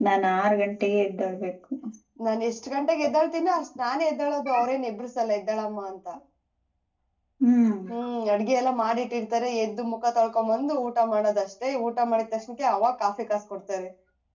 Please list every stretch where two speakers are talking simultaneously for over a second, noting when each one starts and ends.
none

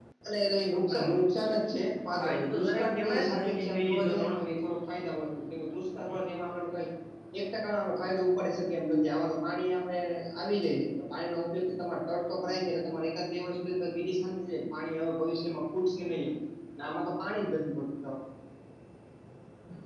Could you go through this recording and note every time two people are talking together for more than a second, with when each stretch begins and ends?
2.2-4.4

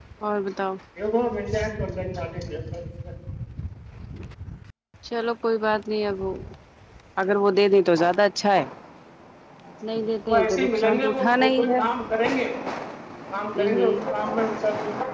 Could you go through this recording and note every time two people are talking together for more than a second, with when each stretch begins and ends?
10.3-11.8

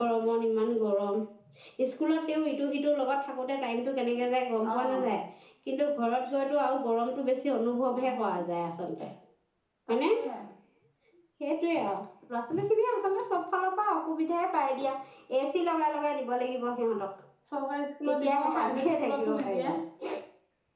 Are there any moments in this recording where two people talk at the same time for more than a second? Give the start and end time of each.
18.1-19.6

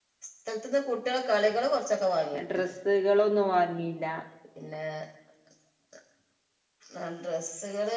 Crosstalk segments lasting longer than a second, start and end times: none

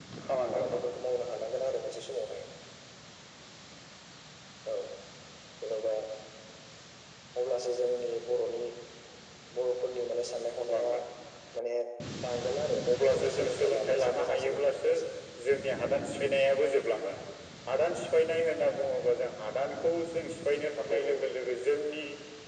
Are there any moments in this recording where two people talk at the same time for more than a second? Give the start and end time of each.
13.2-14.9

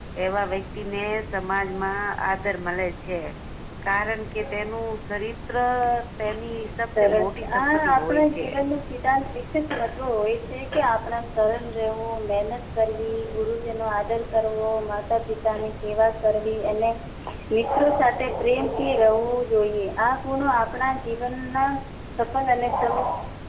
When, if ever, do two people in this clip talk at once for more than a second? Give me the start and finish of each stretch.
7.0-8.5

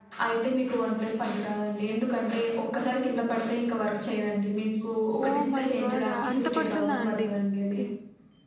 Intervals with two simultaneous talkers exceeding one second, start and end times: 5.3-7.3

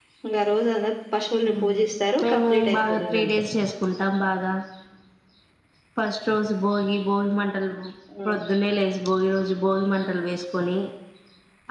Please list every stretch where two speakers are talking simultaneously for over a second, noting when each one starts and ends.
2.2-3.4

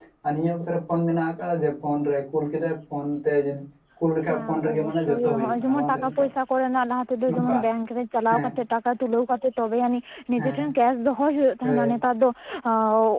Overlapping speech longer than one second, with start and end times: 4.3-6.2

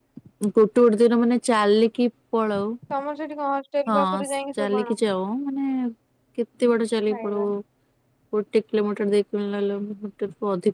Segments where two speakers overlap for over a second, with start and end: none

